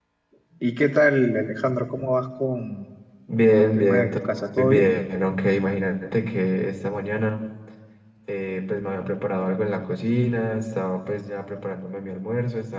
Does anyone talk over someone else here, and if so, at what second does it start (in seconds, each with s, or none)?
3.5 s